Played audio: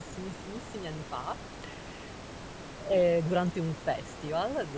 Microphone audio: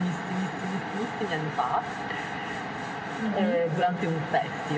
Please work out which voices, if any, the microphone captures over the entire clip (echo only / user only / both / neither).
both